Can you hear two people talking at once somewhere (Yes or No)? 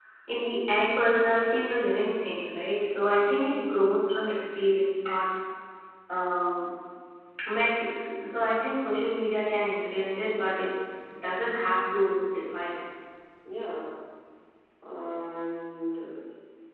No